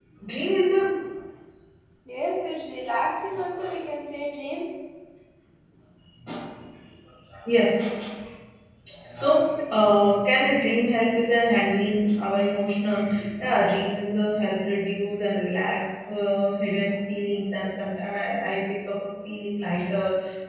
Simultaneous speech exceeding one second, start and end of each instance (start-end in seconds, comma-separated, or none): none